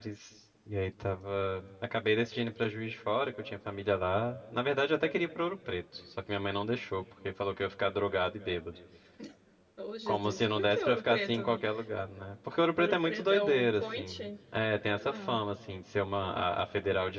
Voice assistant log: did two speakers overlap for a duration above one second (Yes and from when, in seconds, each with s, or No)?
Yes, from 10.1 s